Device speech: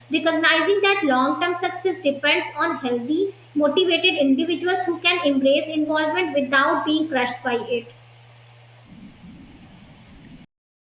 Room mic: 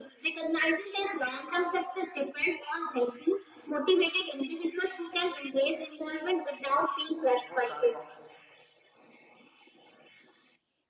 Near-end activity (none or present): present